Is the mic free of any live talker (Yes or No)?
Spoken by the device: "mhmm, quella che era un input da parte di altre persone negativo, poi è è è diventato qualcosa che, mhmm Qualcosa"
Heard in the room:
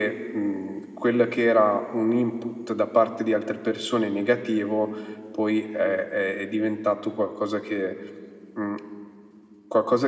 Yes